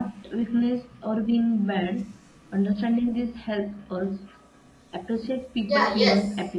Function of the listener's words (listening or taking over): taking over